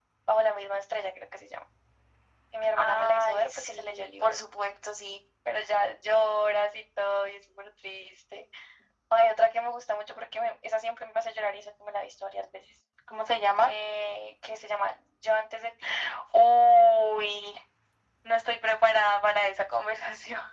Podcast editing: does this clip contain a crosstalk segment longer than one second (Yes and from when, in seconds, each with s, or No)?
Yes, from 2.8 s